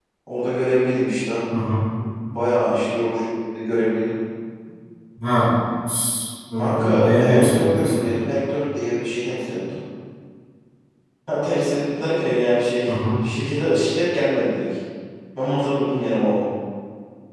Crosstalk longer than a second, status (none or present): present